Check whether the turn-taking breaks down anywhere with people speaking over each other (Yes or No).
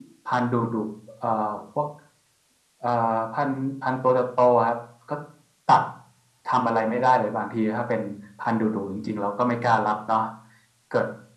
No